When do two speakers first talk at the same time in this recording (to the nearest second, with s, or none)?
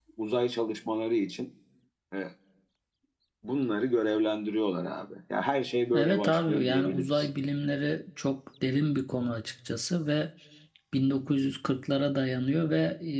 6 s